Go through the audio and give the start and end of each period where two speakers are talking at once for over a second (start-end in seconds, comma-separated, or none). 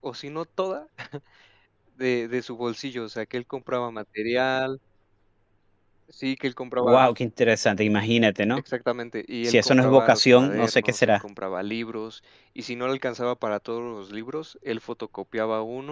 9.4-11.2